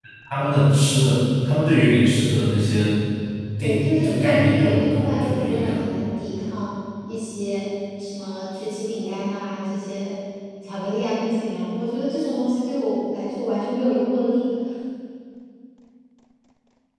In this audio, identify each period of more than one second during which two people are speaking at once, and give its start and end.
3.6-5.8

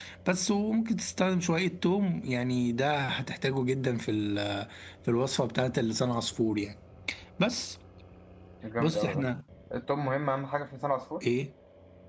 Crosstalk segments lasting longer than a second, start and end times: none

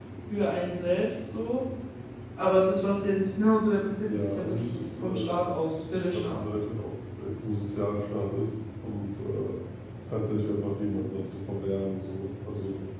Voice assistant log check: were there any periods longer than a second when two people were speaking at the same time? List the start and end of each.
4.1-5.4

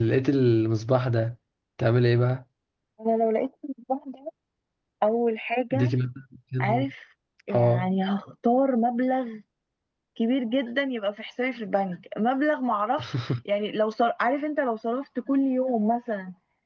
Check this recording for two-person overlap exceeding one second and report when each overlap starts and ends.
none

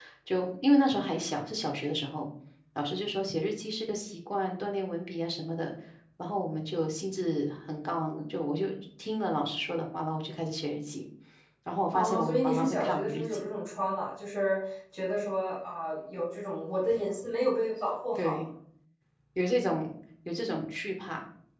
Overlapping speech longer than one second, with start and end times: 11.9-13.4

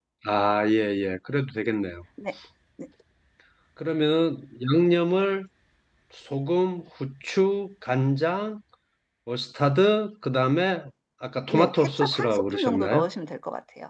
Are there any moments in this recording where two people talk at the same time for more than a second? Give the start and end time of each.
11.5-13.1

